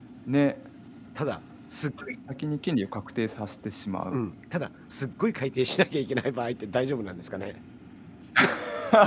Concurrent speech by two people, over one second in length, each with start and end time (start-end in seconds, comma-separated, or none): none